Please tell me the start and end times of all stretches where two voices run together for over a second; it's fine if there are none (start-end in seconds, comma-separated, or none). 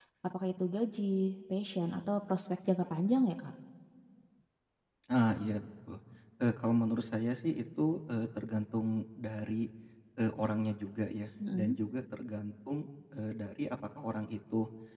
none